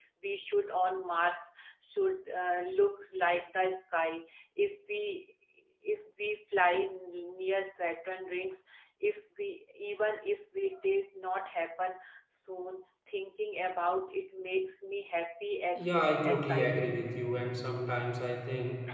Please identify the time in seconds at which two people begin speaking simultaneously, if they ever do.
15.8 s

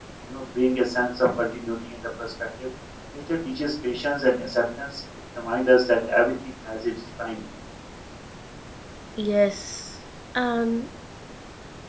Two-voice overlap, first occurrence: none

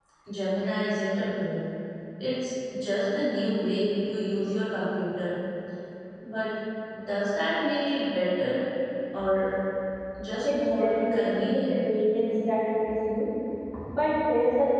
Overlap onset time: 10.4 s

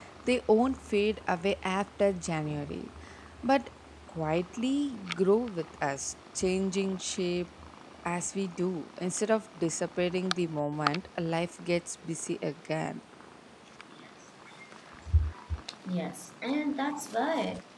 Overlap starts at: none

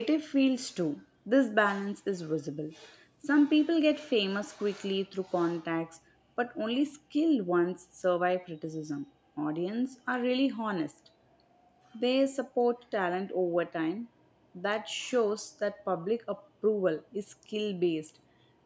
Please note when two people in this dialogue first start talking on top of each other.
none

